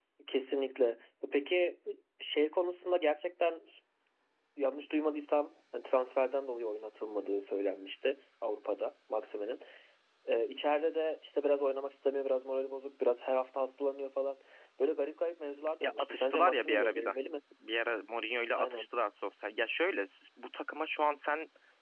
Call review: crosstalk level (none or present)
present